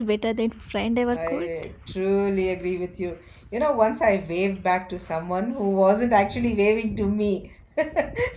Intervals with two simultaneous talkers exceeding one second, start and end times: none

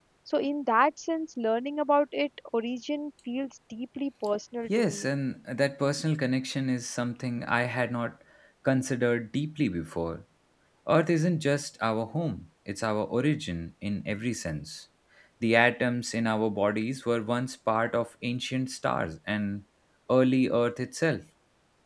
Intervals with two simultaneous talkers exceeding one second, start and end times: none

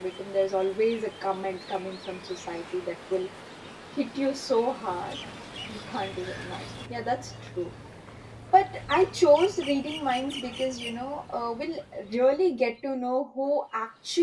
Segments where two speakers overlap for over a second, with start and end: none

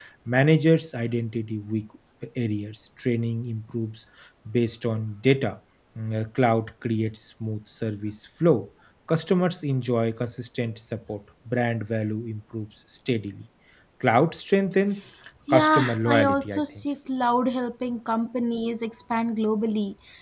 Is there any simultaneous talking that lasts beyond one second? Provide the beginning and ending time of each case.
15.5-16.8

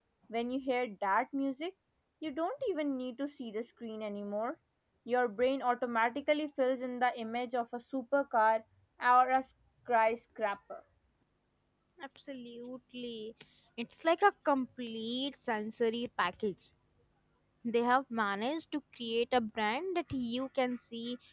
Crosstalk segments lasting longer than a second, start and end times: none

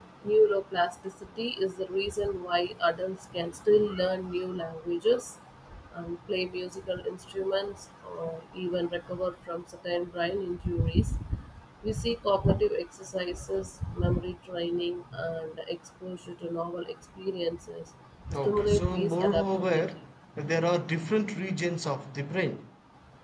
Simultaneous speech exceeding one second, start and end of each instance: 18.3-19.8

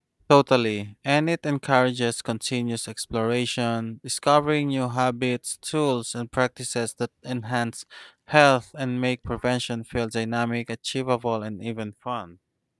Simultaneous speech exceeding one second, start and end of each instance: none

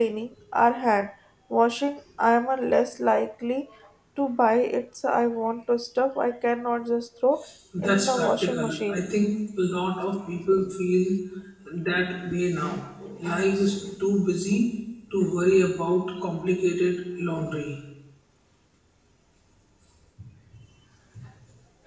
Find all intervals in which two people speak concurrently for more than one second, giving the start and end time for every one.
7.8-9.0

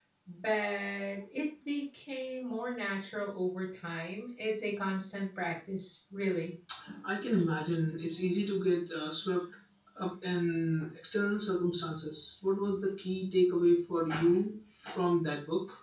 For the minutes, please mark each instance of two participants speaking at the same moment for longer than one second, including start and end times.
none

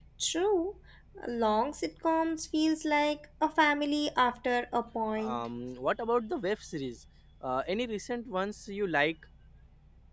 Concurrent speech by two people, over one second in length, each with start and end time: none

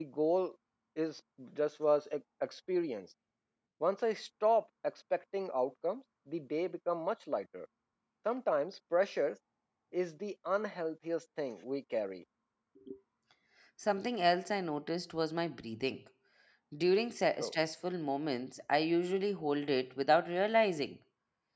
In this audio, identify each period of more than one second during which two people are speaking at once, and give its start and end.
none

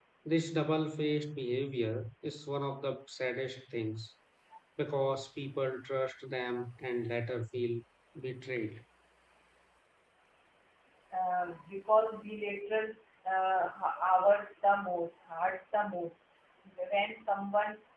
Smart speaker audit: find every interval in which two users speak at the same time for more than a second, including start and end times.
none

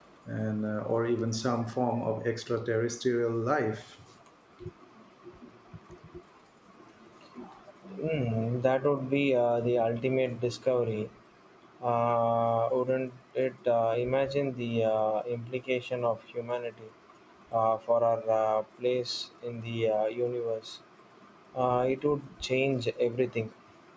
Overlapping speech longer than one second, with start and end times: none

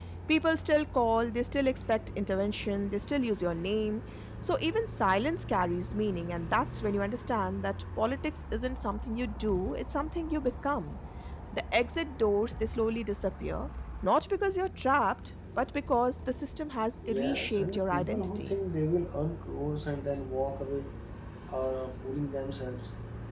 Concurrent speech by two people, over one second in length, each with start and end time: 17.1-18.5

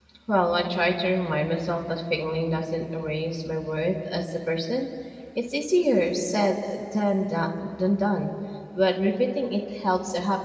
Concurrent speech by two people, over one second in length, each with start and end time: none

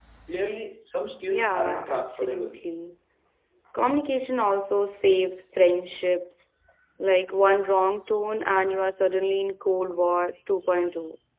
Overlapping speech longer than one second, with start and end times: 1.3-2.6

